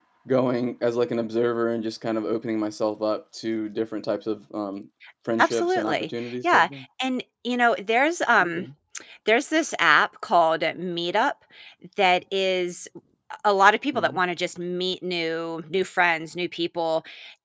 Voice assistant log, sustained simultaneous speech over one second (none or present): present